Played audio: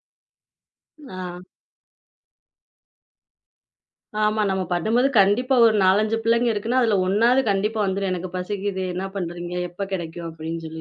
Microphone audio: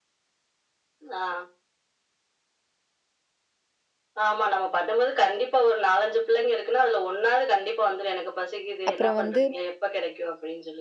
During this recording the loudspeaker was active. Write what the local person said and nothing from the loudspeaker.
அப்புறம் வந்து

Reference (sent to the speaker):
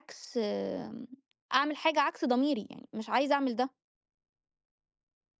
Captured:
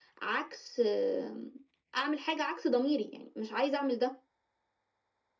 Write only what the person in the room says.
none

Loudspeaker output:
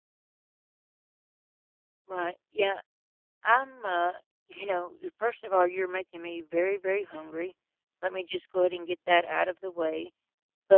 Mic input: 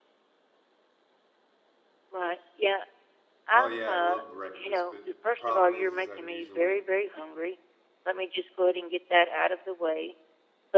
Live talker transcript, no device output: oh, yeah, I love breakfast, but the problem is is I'm usually

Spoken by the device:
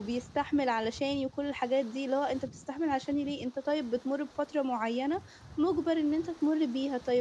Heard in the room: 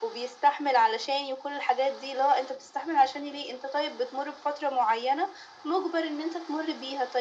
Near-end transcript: none

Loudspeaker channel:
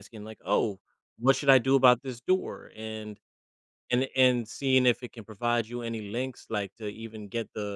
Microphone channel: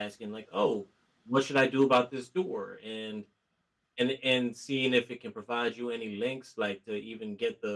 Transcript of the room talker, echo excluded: none

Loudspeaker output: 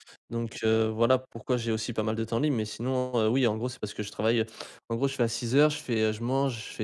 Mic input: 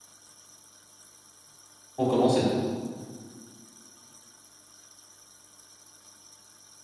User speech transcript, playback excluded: pour commencer.

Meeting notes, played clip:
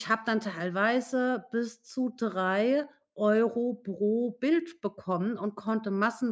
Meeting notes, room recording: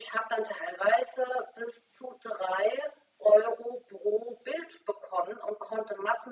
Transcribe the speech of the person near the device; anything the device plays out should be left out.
none

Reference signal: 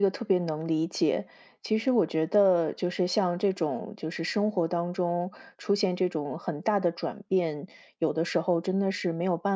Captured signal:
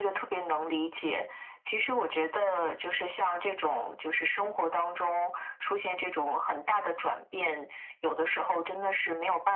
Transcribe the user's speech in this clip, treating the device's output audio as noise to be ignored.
none

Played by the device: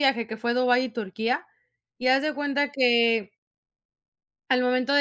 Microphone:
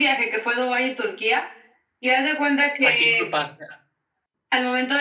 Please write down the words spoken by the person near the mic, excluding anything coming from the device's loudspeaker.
¿A quién culpaste?

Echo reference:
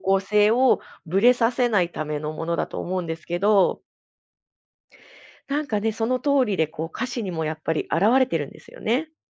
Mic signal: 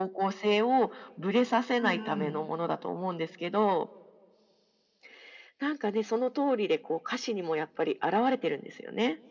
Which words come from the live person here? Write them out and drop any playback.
うんうん。

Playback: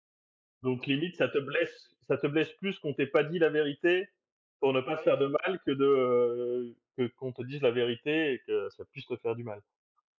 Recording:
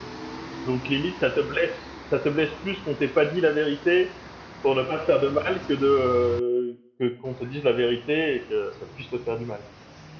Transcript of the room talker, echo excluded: none

